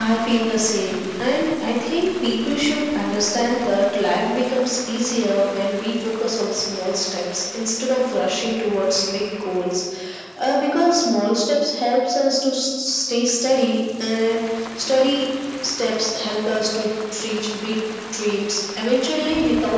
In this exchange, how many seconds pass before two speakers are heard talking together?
none

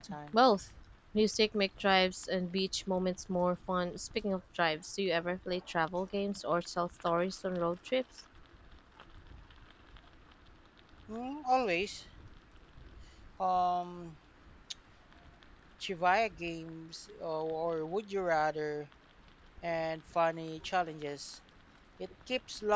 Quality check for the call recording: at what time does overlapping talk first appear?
none

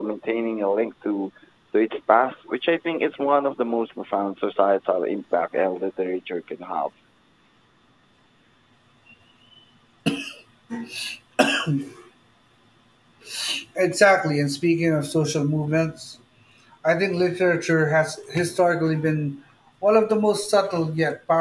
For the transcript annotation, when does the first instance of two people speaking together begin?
none

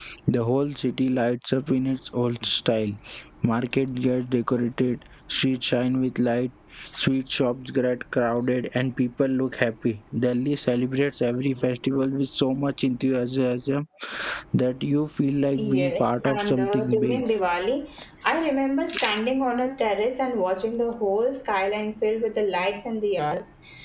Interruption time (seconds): 16 s

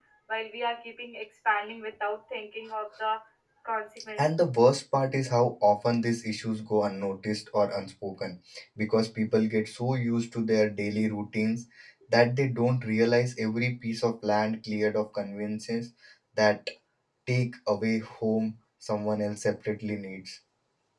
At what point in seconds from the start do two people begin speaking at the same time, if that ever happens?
none

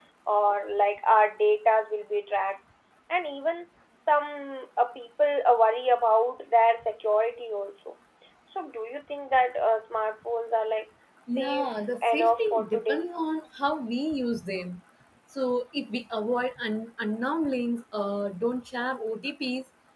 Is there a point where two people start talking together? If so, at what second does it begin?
11 s

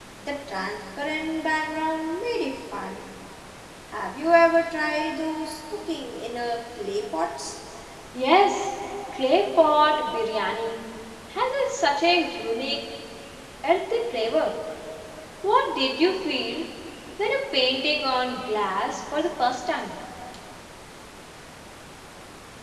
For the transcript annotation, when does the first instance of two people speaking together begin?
none

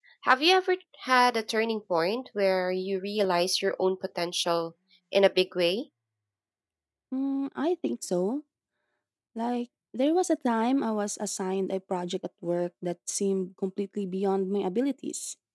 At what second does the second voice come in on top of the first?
none

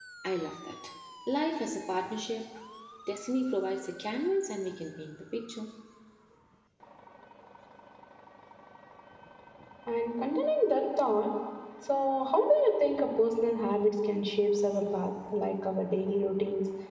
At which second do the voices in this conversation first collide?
none

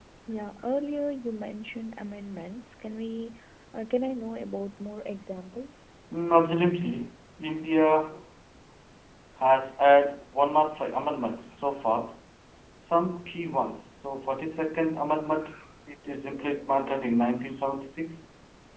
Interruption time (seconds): none

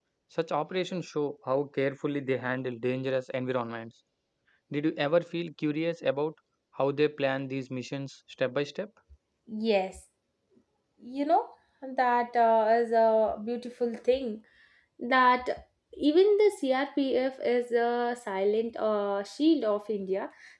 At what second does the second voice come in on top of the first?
none

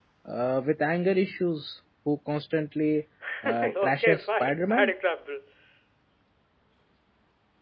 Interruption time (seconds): 4 s

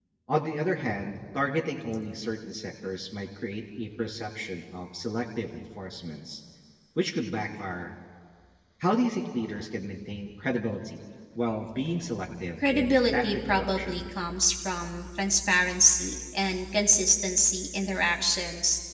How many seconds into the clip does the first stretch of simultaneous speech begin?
13 s

